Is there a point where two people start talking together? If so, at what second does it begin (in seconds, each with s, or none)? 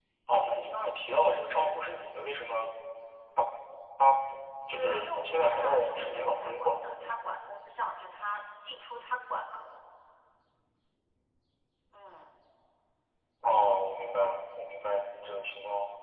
4.7 s